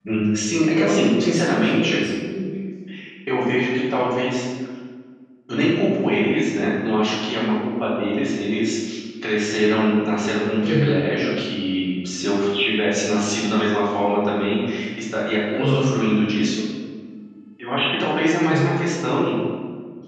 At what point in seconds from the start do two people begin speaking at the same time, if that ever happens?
1 s

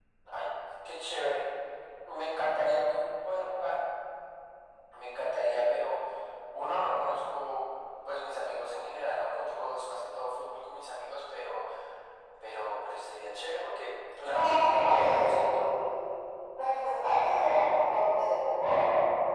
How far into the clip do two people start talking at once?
14 s

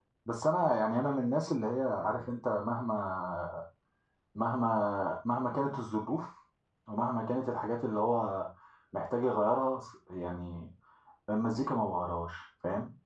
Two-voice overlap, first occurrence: none

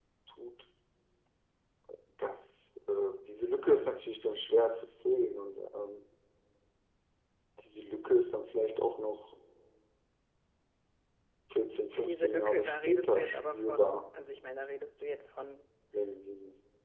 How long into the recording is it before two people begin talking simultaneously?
12 s

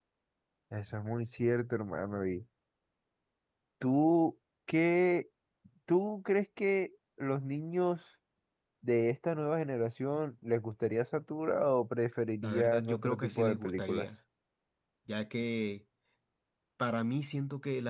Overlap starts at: 12 s

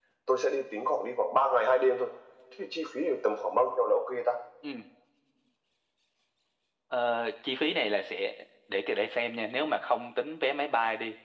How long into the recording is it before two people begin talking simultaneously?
none

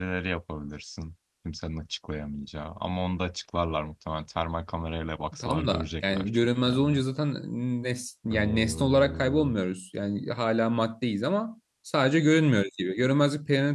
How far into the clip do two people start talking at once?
5 s

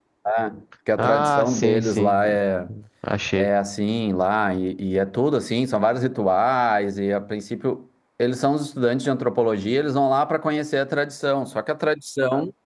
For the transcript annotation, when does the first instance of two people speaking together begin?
1 s

